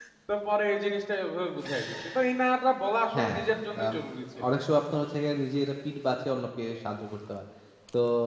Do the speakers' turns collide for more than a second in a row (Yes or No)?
No